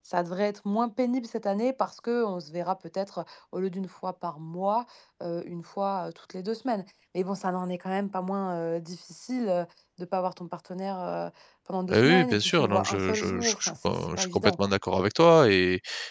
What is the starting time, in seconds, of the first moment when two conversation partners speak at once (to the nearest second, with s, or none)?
12 s